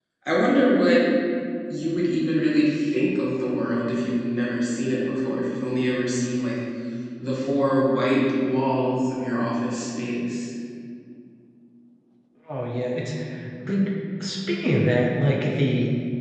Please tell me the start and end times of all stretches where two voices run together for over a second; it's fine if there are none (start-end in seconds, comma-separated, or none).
none